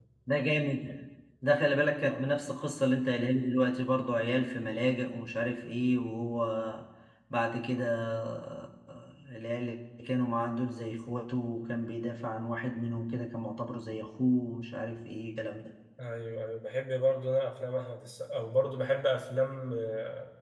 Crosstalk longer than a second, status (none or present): none